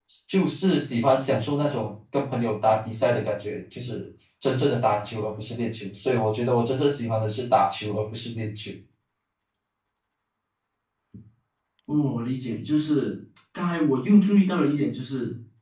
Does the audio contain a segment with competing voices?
No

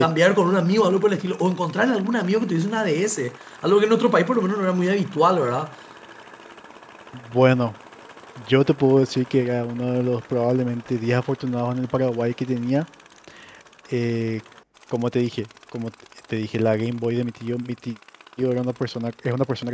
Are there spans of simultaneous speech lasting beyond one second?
No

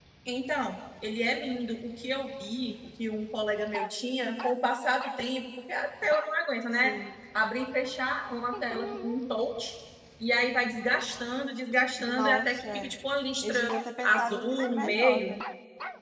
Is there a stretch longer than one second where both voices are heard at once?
Yes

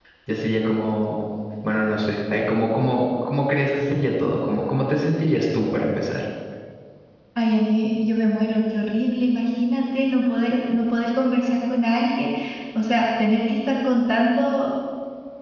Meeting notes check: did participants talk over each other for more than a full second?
No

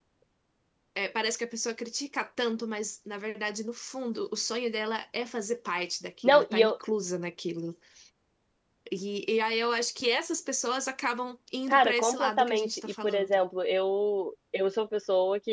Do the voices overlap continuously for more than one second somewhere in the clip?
Yes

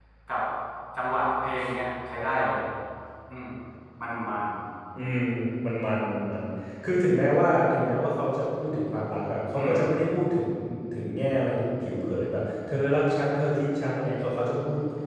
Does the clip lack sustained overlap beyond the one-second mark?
Yes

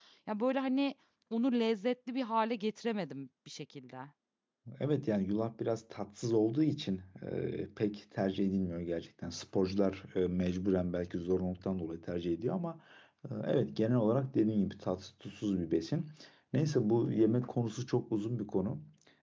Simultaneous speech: No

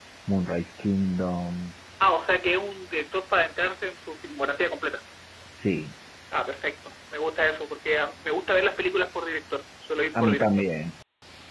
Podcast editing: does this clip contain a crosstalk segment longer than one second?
No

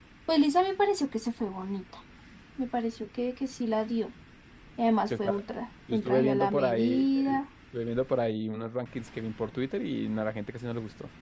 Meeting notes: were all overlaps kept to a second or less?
No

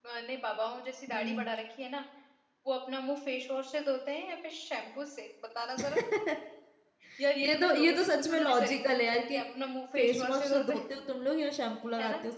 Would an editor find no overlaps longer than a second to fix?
No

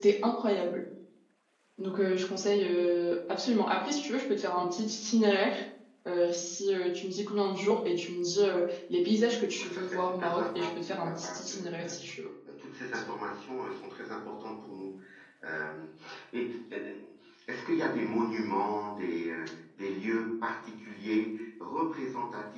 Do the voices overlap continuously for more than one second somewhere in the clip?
Yes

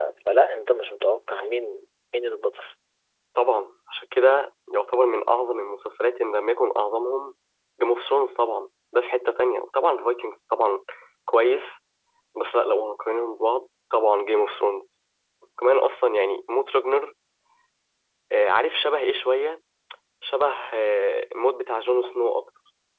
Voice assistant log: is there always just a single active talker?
Yes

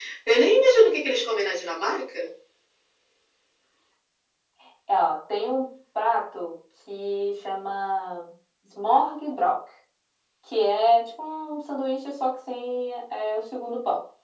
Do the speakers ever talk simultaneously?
No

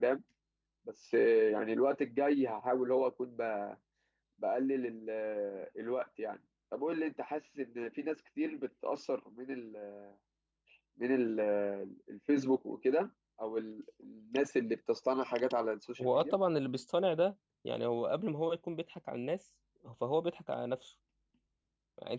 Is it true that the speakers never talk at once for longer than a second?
Yes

